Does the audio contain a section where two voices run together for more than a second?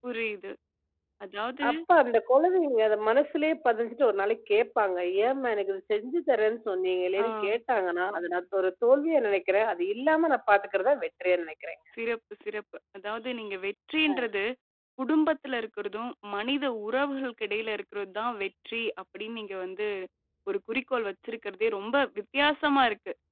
No

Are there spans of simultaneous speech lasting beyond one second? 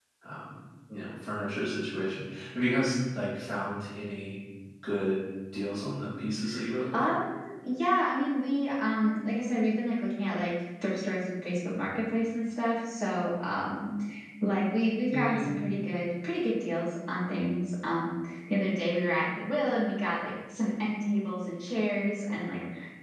No

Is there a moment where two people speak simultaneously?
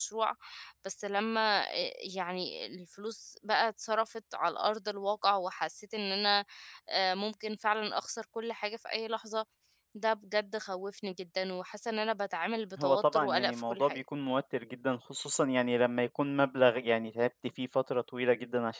Yes, from 12.8 s

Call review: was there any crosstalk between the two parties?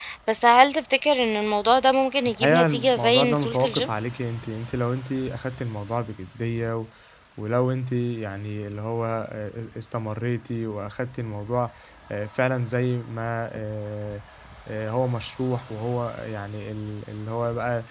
Yes, from 2.2 s

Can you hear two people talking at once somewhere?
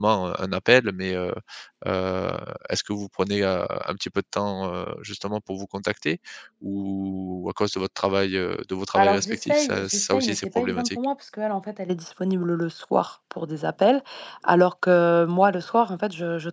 Yes, from 8.9 s

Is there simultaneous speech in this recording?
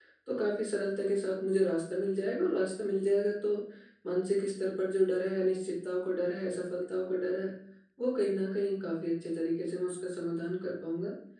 No

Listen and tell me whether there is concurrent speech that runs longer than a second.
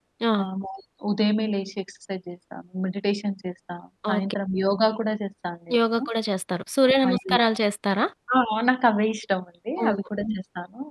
No

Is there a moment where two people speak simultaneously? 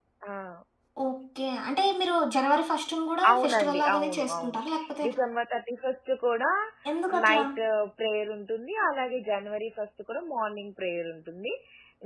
Yes, from 3.3 s

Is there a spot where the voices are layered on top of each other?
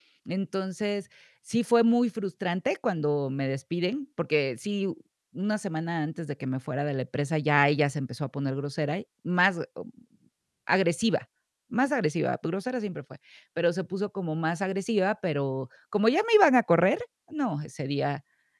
No

